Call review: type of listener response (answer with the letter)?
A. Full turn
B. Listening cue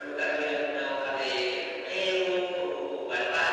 B